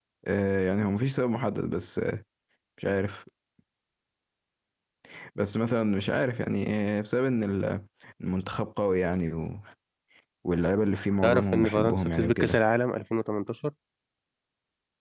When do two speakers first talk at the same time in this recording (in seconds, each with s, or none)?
11.2 s